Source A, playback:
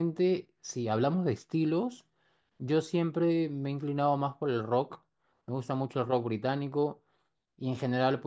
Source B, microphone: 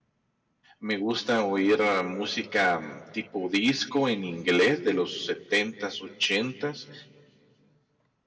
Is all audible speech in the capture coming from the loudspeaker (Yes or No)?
No